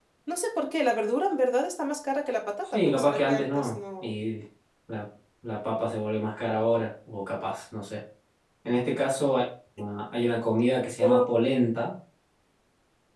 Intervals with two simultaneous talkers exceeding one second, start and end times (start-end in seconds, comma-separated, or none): 2.7-4.1